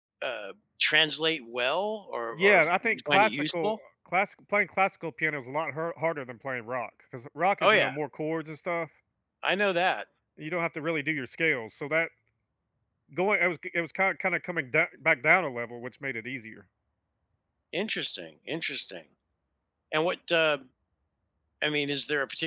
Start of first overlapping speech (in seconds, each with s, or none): 2.3 s